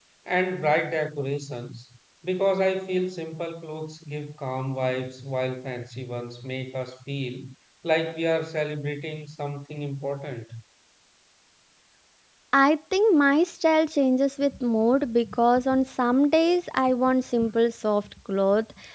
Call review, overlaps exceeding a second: none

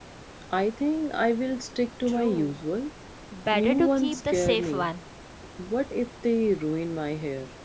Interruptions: present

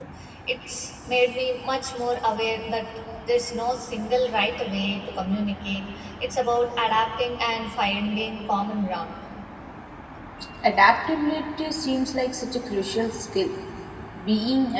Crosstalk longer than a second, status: none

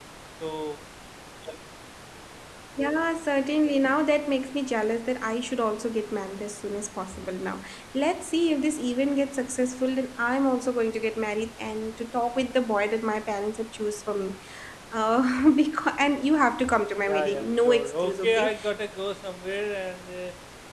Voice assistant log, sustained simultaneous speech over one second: present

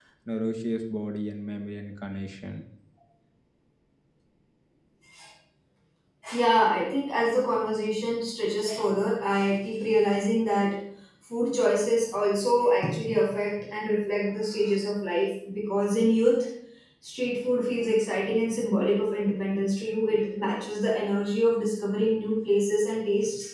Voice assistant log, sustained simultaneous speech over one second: none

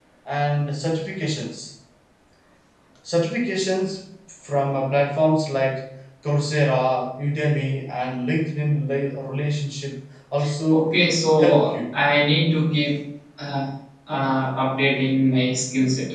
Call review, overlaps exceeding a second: none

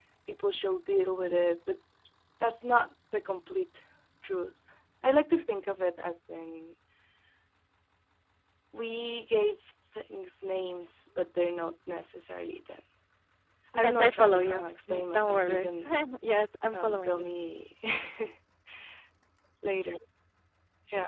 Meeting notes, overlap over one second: present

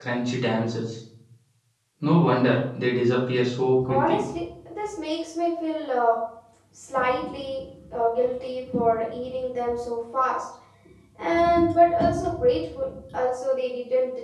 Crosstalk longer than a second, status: none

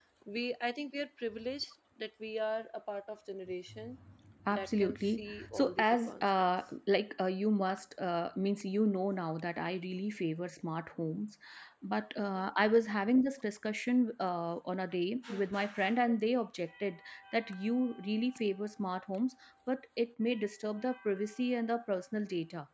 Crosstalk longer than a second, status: present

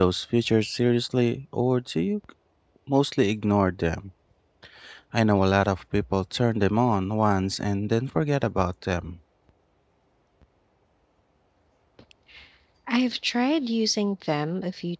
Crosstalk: none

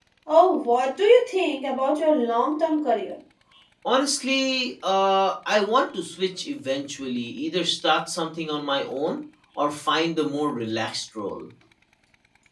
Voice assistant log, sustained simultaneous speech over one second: none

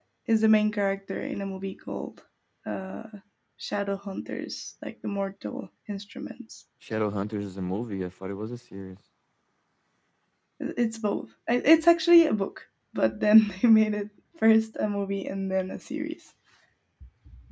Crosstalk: none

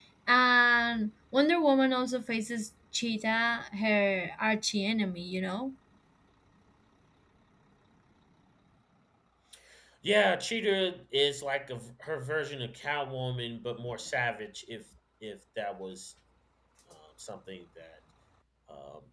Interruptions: none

